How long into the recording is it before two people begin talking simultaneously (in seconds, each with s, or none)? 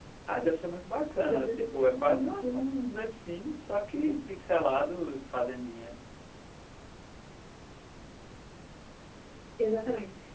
1.2 s